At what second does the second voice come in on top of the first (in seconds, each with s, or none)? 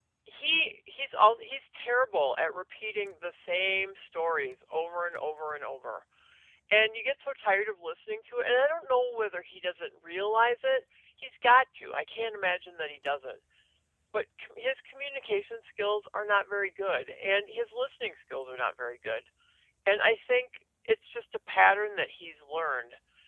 none